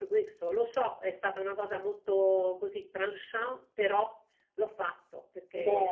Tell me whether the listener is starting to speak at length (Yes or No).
No